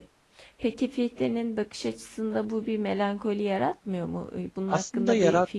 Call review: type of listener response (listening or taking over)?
taking over